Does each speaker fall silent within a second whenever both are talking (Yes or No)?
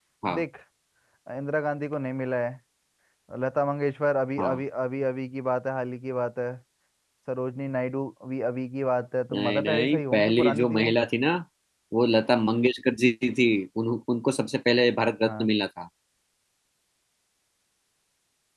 No